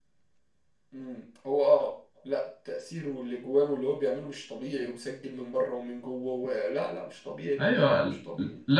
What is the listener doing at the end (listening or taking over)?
taking over